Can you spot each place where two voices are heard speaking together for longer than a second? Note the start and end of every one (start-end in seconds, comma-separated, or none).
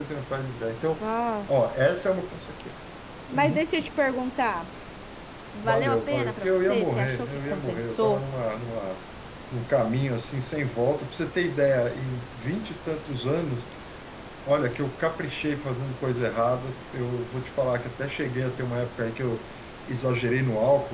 5.6-8.2